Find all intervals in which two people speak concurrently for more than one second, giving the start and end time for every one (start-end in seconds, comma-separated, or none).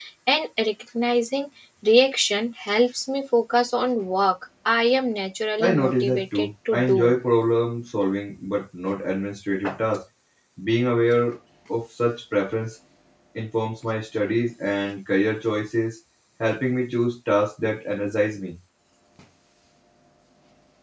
5.6-7.2